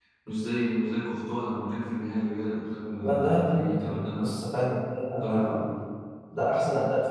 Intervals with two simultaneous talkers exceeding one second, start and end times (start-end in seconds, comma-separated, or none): 3.0-4.4